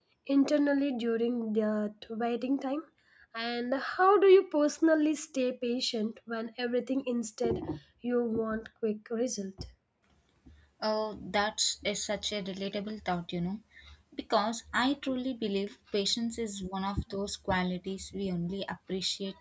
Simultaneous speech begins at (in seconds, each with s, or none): none